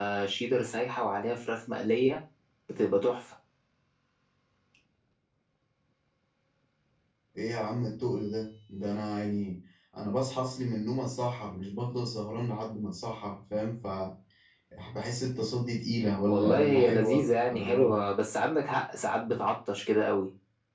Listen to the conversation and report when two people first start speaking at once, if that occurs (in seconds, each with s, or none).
16.3 s